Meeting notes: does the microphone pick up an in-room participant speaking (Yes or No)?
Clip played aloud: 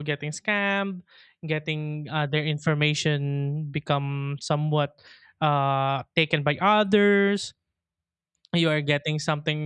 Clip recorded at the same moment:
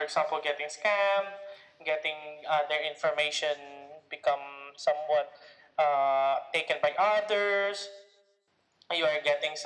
No